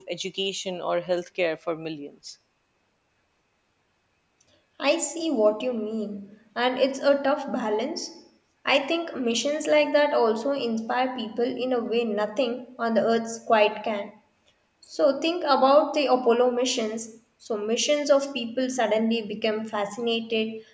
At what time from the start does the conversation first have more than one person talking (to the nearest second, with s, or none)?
none